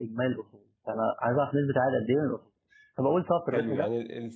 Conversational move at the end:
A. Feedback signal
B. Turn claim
B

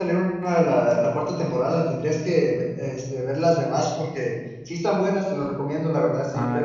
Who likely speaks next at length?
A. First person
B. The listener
A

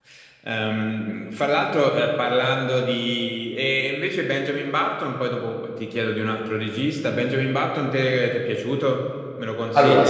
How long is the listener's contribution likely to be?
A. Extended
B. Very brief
B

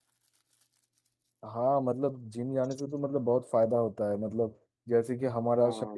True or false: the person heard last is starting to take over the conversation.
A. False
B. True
A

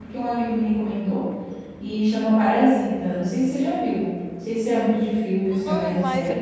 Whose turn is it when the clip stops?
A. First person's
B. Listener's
B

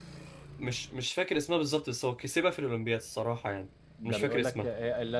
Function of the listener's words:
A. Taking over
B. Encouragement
A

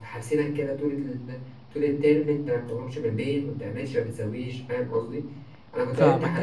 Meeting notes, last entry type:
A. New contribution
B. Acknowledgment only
B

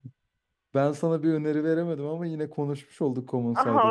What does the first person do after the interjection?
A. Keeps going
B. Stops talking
B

